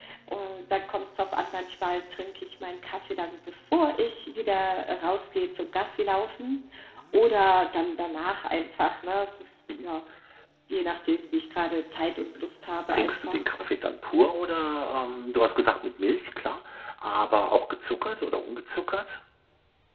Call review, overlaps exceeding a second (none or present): none